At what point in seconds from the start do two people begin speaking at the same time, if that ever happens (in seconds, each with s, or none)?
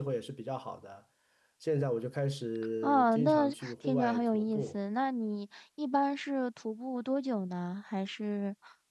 2.8 s